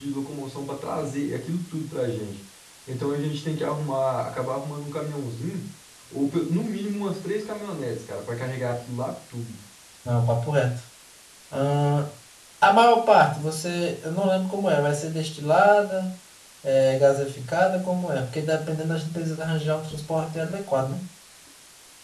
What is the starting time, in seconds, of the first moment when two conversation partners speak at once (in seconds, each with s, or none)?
none